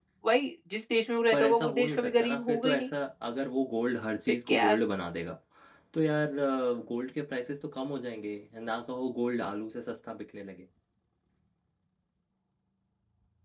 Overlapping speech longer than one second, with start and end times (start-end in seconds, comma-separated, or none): 1.3-2.9